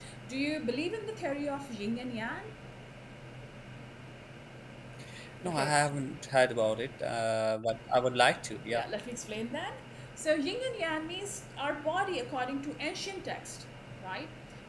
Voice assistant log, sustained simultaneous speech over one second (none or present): none